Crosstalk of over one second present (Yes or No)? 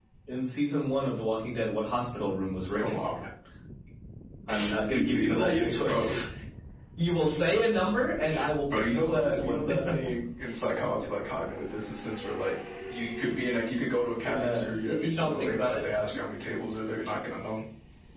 Yes